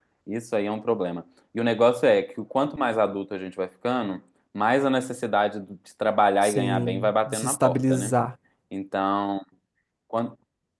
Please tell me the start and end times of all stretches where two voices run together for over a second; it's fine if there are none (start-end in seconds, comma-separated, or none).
6.4-8.1